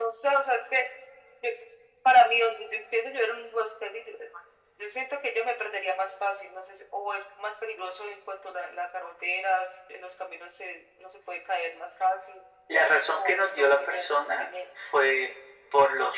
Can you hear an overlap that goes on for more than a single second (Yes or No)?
Yes